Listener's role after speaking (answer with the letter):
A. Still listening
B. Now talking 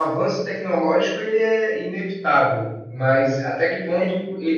A